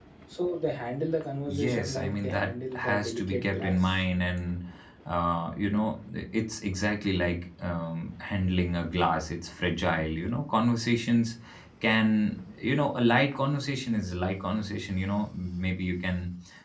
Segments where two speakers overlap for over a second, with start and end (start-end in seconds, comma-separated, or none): 1.5-3.9